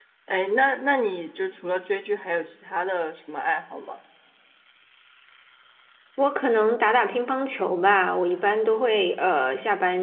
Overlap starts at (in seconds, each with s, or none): none